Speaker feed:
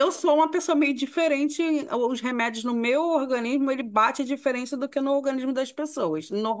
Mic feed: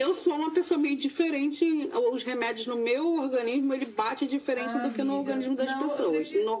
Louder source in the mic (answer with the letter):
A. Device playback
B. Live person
A